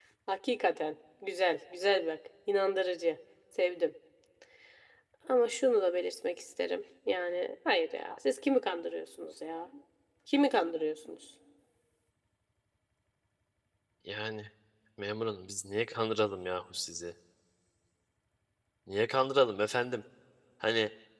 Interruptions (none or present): none